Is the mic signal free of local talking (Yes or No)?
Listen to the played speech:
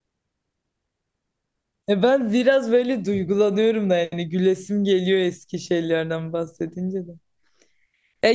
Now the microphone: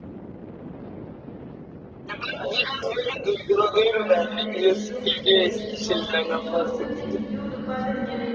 No